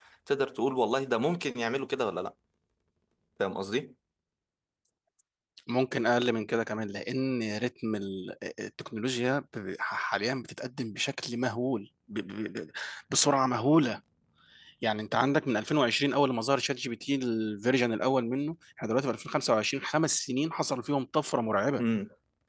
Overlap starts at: none

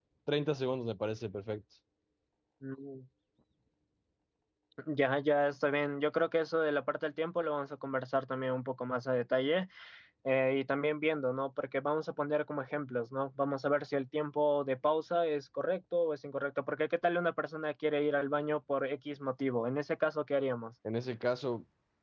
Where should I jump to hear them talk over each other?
none

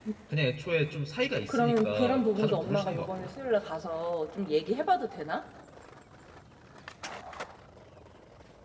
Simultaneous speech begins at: 1.5 s

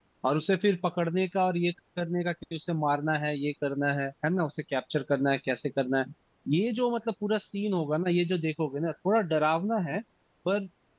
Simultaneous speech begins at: none

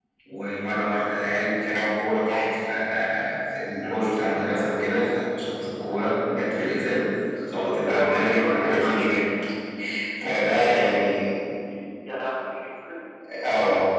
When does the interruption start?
7.8 s

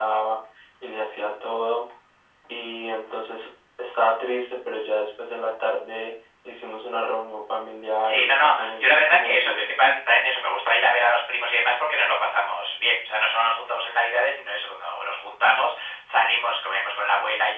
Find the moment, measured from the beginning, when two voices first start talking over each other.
8.0 s

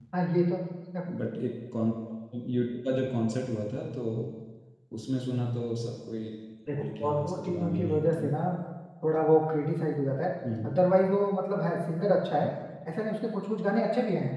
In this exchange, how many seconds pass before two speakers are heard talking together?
6.7 s

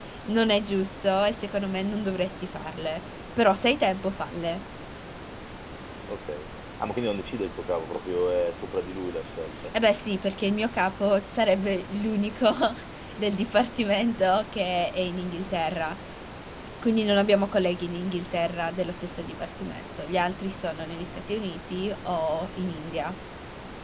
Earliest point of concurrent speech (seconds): none

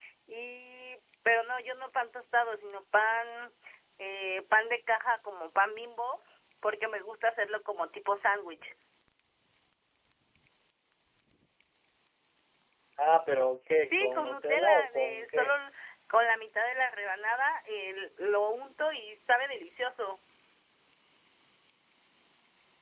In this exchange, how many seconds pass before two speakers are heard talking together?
13.9 s

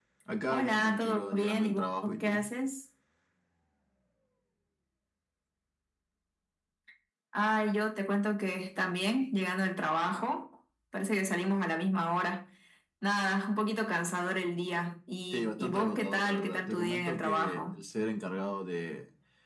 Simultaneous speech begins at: 0.5 s

